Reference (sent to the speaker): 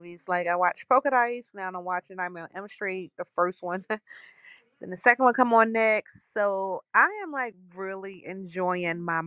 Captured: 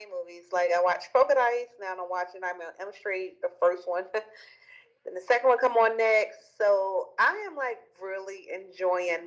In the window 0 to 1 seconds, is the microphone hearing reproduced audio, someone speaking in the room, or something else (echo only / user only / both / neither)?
echo only